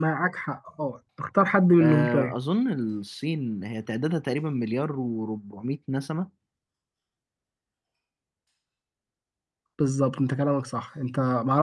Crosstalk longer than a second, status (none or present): none